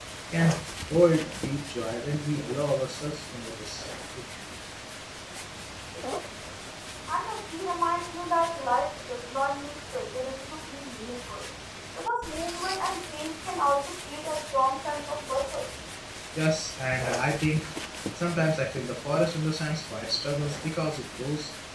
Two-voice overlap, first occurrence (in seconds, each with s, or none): none